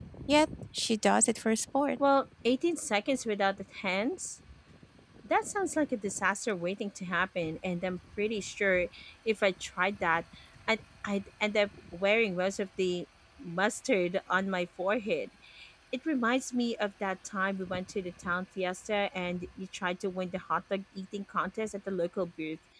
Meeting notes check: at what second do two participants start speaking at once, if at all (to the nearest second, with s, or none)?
none